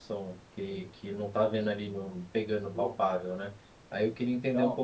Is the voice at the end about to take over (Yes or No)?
No